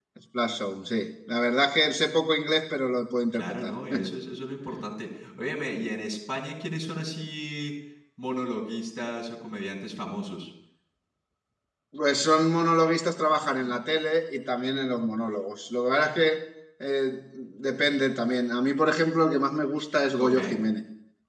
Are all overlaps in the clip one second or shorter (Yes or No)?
Yes